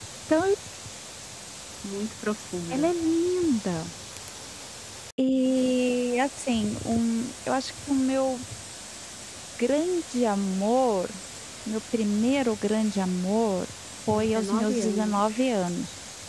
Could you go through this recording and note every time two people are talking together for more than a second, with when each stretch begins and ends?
14.1-15.5

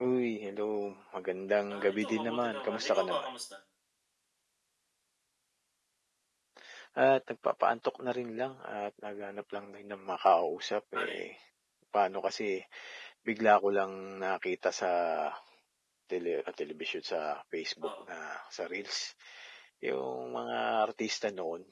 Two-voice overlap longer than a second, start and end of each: 1.8-3.3

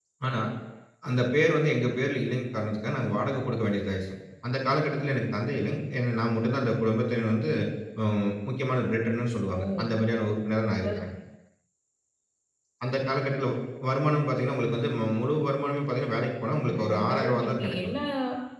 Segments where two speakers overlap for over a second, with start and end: 16.7-17.9

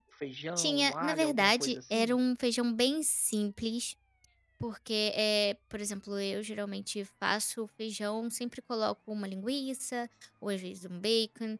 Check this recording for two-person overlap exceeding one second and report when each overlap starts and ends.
0.6-2.2

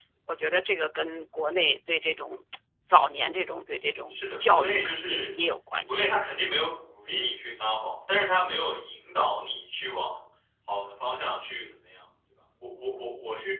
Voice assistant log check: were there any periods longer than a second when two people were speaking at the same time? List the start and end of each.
4.1-5.4

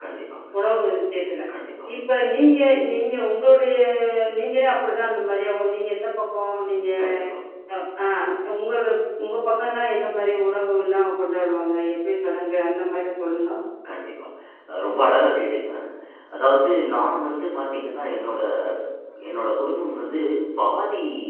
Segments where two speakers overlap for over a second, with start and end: none

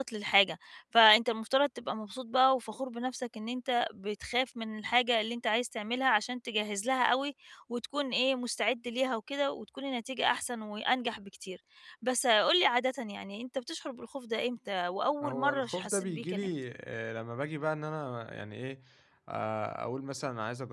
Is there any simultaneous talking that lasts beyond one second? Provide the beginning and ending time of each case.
15.2-16.6

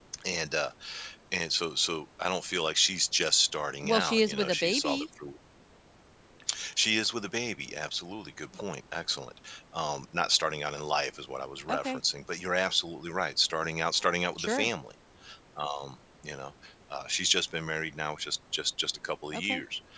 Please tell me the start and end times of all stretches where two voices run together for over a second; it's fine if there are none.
3.8-5.1

